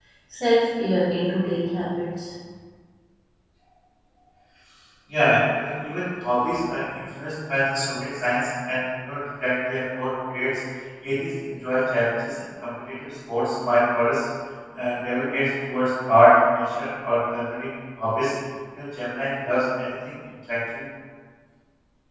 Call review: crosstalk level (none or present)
none